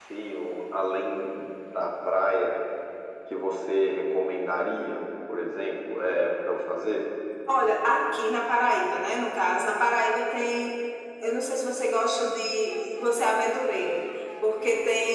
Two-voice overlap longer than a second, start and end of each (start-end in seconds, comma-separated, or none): none